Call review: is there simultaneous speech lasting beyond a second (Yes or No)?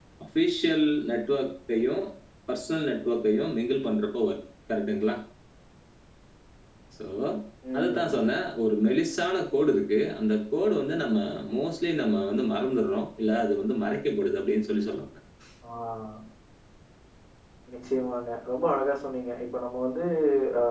No